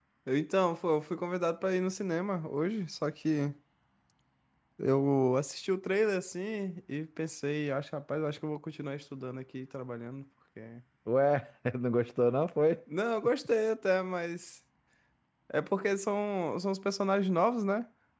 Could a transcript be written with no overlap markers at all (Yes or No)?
Yes